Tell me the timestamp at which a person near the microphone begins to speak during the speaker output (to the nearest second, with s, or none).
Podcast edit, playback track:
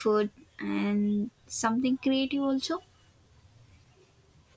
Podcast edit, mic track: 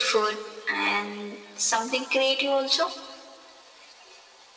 none